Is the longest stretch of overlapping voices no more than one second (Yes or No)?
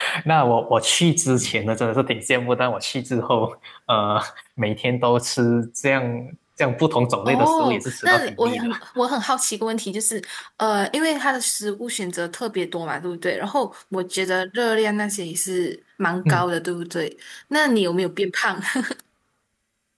No